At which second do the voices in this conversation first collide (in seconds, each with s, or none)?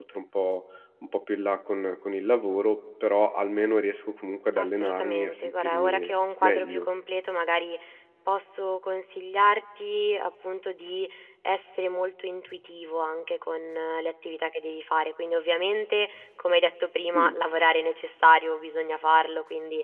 4.6 s